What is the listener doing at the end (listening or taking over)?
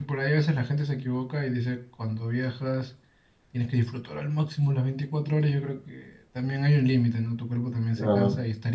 listening